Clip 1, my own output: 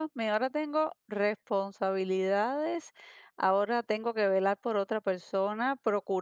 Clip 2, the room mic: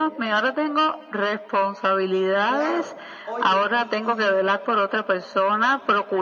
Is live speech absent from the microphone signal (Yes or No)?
No